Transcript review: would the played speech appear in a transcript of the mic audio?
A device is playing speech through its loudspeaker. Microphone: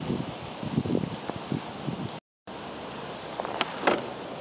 No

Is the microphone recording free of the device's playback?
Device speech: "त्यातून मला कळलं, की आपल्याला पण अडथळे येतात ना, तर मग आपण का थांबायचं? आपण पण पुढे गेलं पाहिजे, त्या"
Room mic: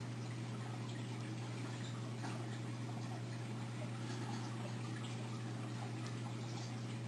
Yes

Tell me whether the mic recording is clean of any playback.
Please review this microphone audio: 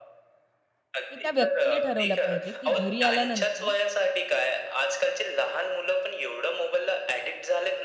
No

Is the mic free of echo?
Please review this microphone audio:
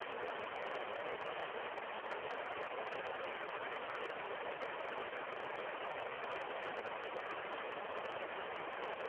Yes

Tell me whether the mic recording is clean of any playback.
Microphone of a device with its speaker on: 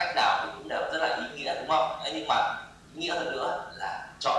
No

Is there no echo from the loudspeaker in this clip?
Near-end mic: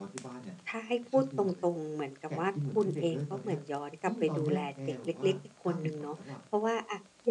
No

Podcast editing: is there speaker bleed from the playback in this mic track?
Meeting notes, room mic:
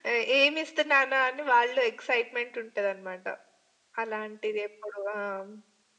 Yes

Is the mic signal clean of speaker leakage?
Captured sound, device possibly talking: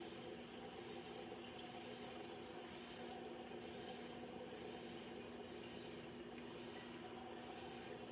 Yes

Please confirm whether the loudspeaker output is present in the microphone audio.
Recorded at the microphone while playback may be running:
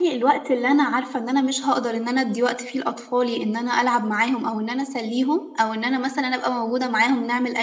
No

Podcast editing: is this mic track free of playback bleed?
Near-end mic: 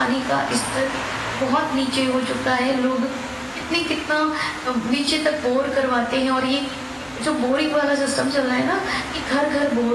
No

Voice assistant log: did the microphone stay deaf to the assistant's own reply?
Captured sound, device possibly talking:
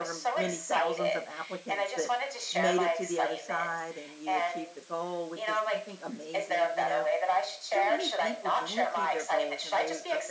No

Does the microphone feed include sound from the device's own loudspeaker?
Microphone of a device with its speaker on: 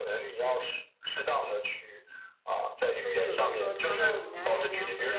Yes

